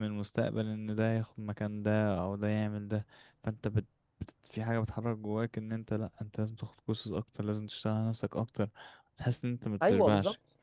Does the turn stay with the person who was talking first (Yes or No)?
No